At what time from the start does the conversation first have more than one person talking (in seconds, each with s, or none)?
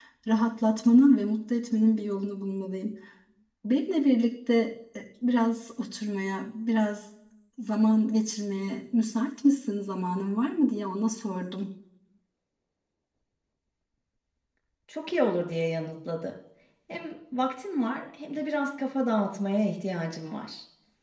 none